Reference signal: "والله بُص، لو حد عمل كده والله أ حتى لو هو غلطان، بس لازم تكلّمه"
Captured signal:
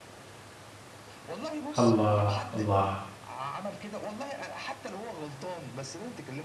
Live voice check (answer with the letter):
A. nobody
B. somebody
B